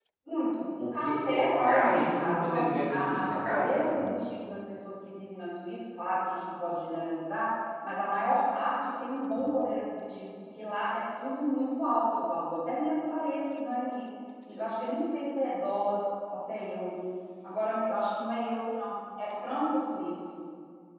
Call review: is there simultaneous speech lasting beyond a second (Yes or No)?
Yes